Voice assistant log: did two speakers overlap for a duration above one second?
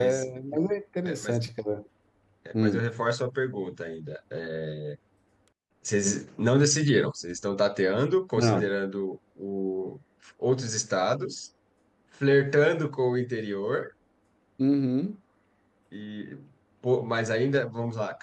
No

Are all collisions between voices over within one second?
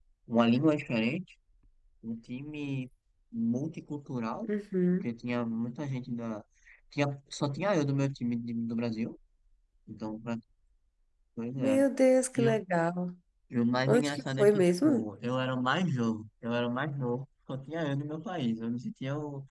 No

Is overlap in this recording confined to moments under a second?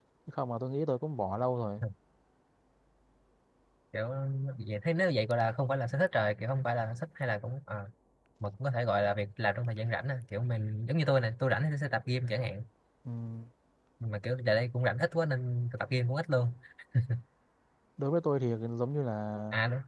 Yes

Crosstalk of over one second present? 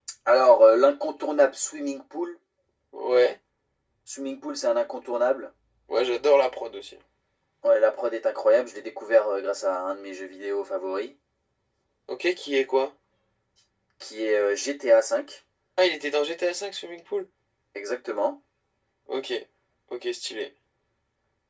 No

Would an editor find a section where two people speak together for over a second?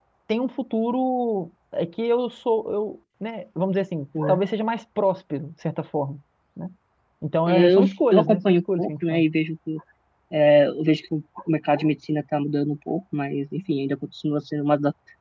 Yes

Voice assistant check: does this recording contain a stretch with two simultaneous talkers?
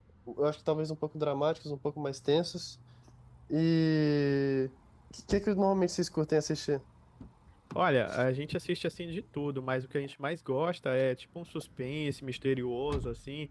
No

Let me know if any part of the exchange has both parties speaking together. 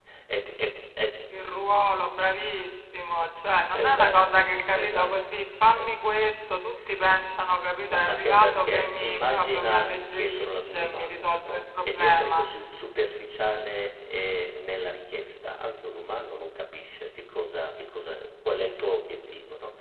Yes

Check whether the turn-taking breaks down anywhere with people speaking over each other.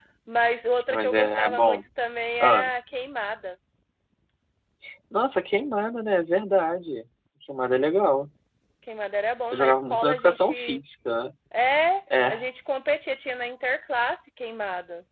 Yes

